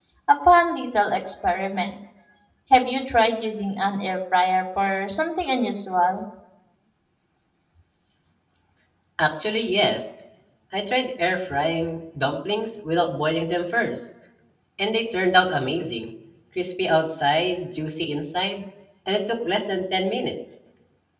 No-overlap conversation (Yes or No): Yes